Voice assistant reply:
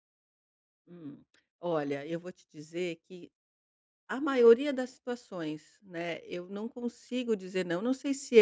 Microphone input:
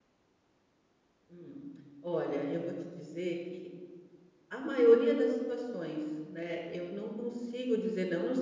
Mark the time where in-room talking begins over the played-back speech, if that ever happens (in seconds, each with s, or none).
none